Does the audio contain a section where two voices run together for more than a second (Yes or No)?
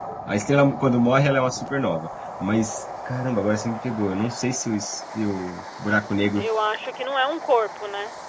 No